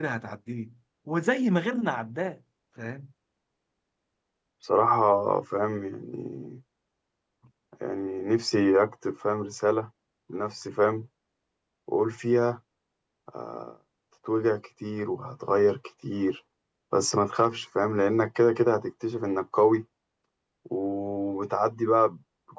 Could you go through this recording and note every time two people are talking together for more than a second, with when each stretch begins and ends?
none

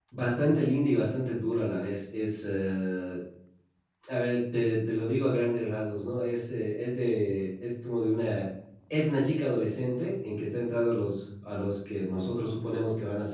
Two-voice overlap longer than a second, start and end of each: none

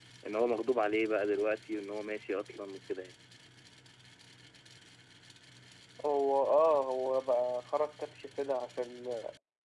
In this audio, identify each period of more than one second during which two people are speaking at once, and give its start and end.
none

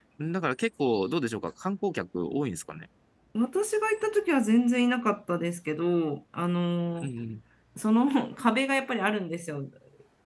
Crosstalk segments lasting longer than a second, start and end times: none

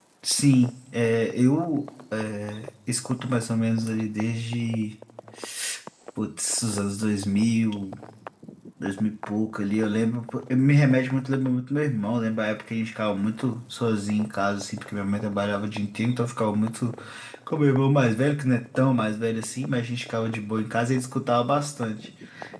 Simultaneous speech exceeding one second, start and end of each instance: none

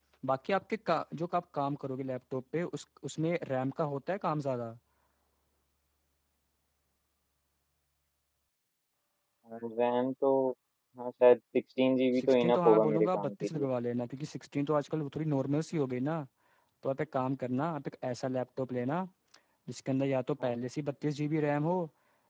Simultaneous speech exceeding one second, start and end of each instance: 12.2-13.7

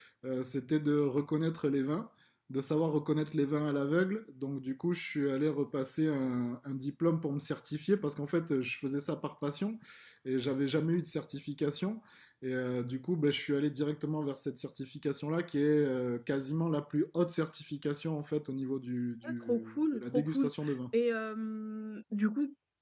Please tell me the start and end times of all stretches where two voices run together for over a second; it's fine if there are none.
19.2-20.5

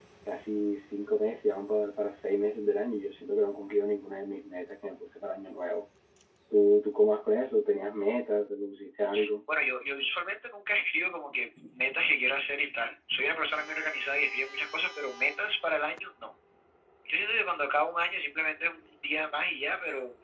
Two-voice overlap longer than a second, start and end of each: none

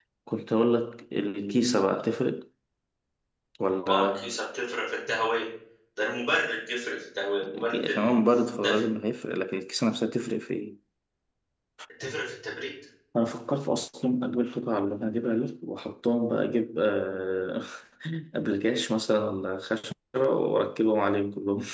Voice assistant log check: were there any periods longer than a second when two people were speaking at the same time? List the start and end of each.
7.5-8.8

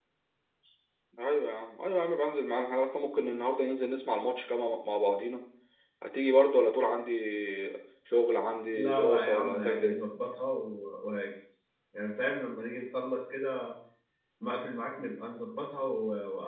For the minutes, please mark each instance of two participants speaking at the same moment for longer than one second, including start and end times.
8.7-10.0

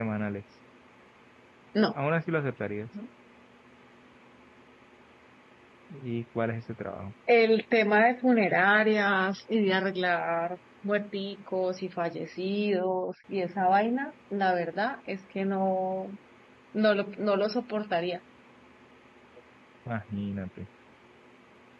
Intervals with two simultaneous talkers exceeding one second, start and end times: none

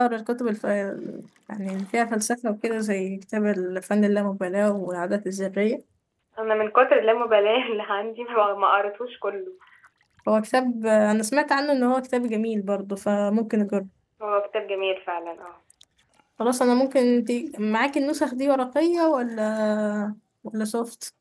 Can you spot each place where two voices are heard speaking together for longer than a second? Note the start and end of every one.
none

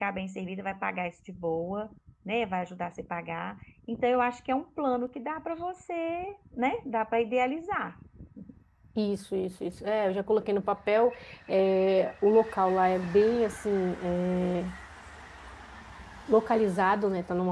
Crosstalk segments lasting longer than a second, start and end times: none

